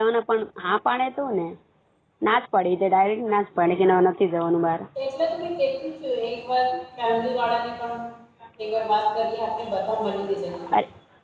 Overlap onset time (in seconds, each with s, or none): none